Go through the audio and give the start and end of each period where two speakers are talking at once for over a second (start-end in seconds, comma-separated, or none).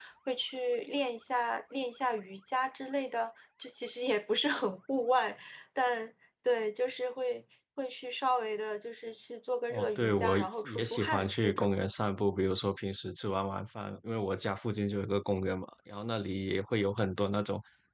9.7-11.7